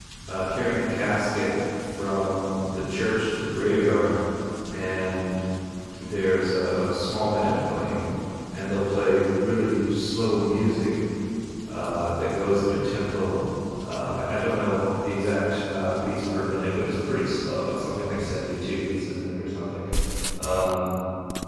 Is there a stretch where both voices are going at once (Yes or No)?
No